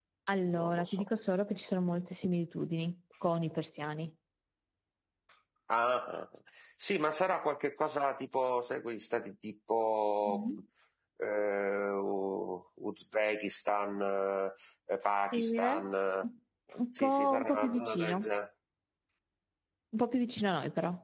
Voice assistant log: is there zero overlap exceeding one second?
No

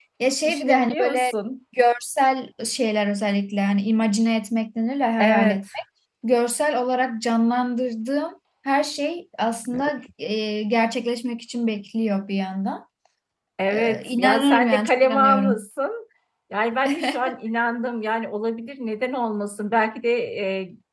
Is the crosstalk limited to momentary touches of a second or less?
No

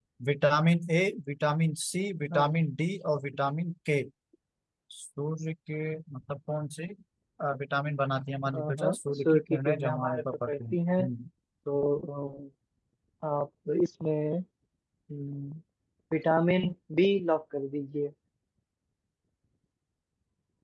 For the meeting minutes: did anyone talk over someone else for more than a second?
Yes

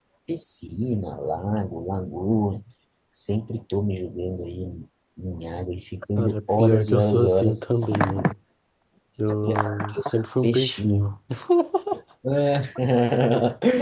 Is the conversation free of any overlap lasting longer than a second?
No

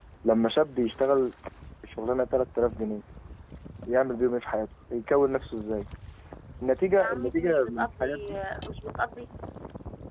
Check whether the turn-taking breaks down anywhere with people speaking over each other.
Yes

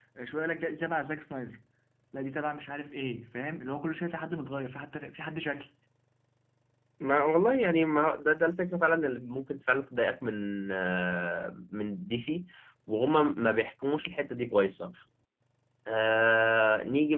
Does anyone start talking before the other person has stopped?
No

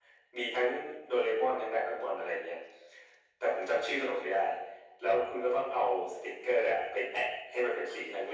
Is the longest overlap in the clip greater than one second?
No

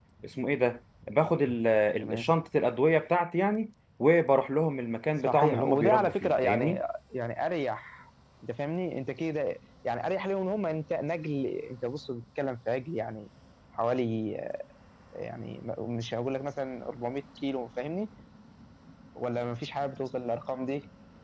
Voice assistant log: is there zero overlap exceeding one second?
No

